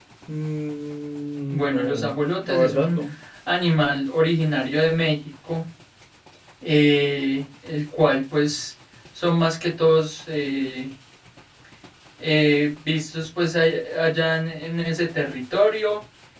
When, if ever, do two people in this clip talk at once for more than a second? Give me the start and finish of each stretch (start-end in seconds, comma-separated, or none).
1.5-3.0